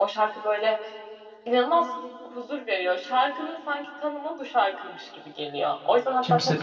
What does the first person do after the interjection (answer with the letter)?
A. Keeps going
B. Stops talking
A